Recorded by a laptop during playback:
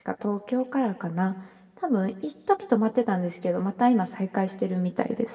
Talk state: user only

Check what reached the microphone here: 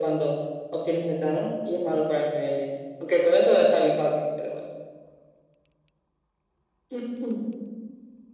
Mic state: echo only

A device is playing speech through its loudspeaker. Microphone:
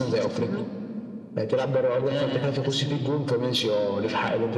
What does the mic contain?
echo only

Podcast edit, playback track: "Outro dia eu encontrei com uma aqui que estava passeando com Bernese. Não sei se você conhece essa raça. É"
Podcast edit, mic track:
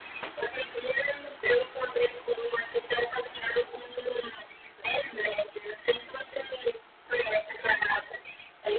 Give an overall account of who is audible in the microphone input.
echo only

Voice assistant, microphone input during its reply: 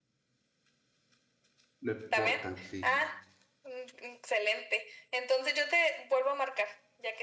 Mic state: both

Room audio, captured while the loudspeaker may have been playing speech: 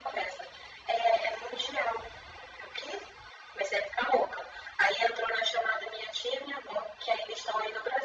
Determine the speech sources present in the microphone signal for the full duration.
echo only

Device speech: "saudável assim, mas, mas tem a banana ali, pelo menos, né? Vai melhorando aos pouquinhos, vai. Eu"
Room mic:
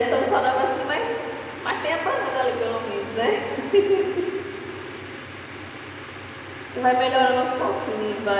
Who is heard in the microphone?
echo only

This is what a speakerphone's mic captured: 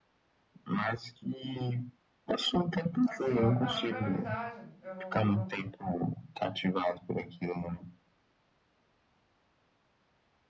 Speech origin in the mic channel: both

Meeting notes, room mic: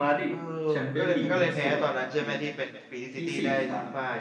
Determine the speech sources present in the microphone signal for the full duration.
both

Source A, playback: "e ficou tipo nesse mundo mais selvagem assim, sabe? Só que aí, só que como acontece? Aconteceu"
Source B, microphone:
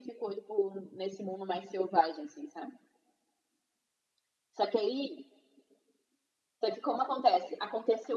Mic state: echo only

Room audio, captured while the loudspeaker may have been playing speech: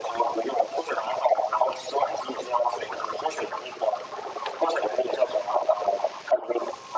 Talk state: echo only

